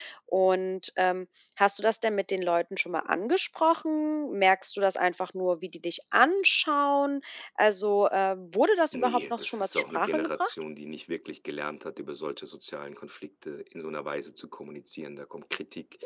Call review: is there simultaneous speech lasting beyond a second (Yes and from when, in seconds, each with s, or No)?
Yes, from 8.9 s